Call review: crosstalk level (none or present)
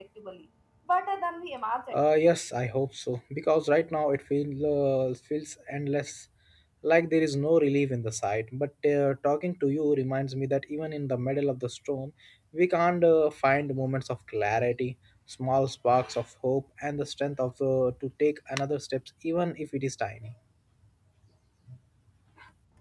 none